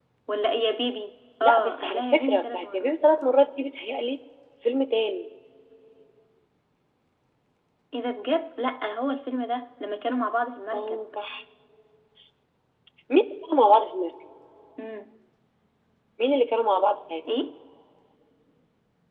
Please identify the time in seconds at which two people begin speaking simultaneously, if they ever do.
1.4 s

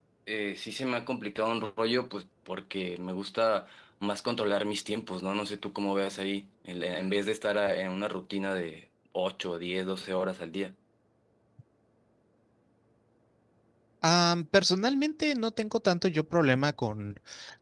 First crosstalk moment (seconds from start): none

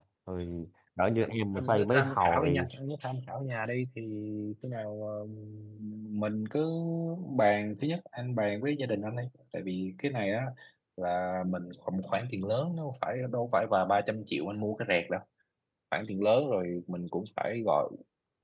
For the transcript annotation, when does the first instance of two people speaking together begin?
1.2 s

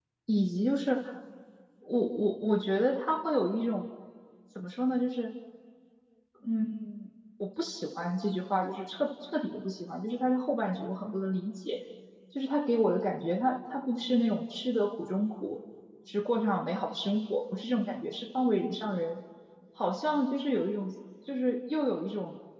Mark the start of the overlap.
none

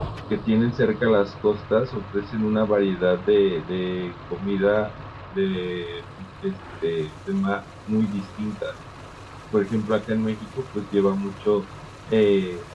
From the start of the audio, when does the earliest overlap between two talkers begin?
none

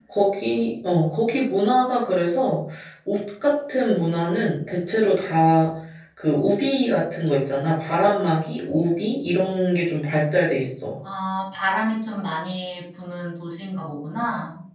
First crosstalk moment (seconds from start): none

